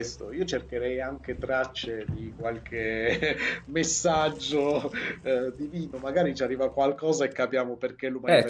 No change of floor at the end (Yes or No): No